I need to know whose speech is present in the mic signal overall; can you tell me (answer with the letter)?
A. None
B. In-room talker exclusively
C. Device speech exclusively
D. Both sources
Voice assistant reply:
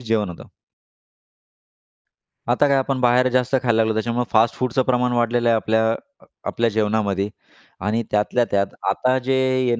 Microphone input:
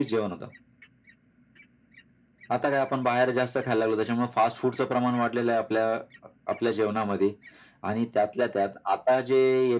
C